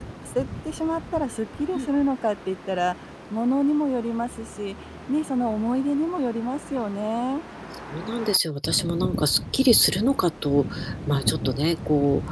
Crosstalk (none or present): none